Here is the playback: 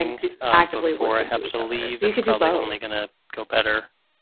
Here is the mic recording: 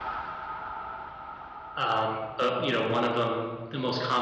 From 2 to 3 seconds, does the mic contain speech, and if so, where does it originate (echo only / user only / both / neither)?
user only